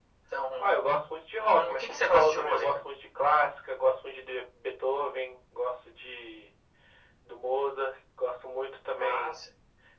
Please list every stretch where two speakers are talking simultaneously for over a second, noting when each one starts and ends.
1.4-2.9

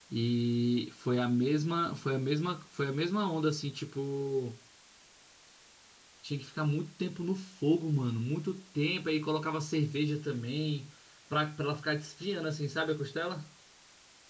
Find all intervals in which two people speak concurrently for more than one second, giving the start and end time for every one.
none

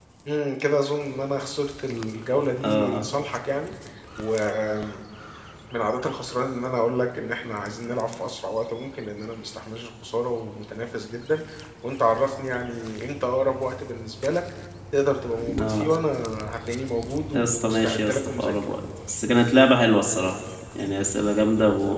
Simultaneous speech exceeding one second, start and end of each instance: 17.3-18.5

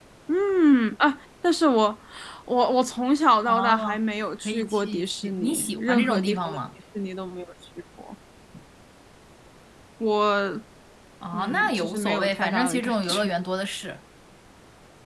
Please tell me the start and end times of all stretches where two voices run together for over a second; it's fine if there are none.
4.5-6.6, 11.3-13.3

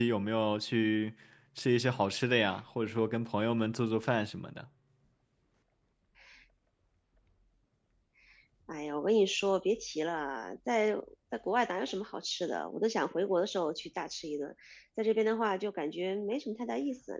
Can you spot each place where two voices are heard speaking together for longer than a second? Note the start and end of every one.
none

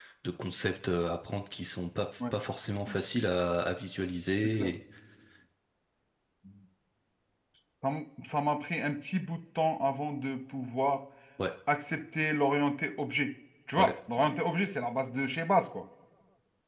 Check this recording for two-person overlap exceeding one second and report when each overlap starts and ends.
none

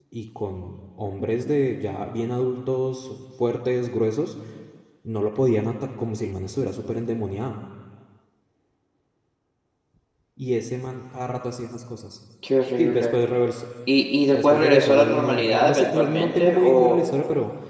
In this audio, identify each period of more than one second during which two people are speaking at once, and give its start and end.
14.3-17.0

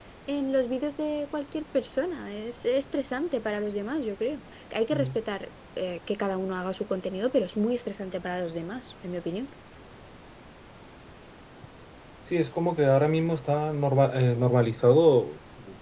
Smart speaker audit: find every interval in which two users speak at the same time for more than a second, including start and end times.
none

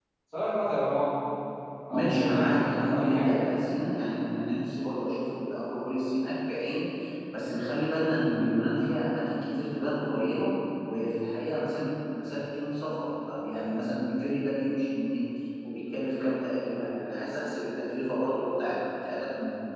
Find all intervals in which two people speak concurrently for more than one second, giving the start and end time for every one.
1.9-3.4

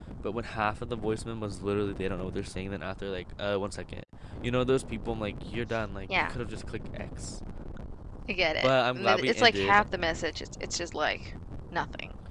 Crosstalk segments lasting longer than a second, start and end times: 8.6-9.8

